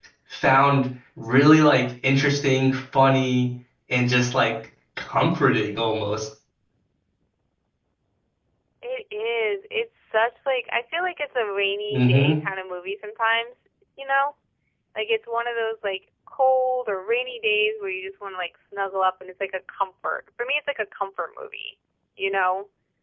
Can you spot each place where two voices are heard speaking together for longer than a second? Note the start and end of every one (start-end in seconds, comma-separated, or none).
none